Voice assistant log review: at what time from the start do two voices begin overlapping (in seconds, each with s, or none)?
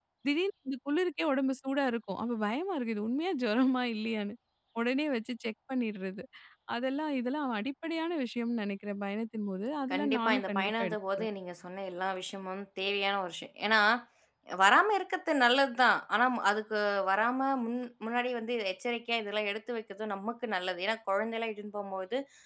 9.9 s